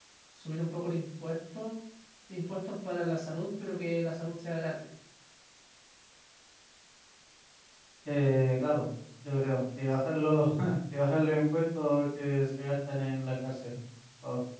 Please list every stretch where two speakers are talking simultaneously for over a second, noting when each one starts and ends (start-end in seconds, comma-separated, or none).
none